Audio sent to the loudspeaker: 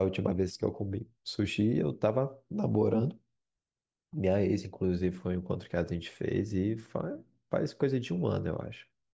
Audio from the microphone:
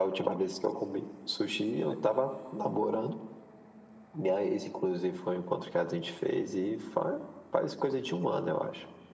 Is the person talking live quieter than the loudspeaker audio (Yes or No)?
Yes